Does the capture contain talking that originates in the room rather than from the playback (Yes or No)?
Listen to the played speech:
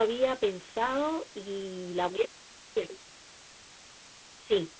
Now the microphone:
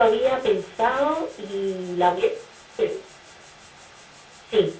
No